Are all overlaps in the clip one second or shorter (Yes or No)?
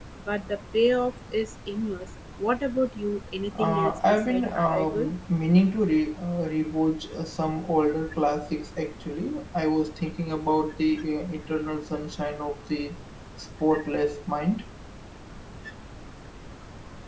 No